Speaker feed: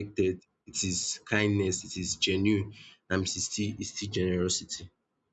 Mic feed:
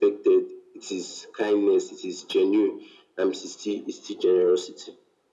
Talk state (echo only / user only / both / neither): echo only